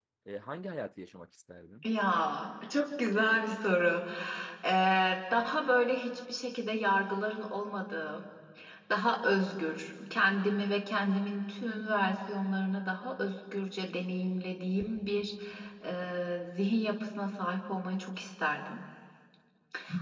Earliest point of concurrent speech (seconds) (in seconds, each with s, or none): none